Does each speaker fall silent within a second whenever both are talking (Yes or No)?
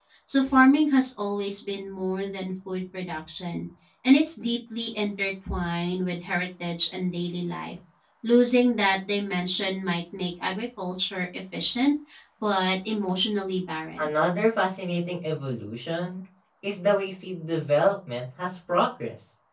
Yes